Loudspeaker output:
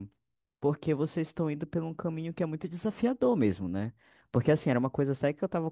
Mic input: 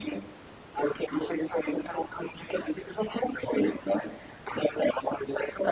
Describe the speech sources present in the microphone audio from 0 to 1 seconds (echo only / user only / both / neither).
echo only